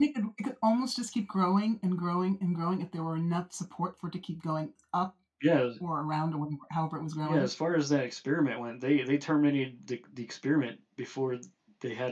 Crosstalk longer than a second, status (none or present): none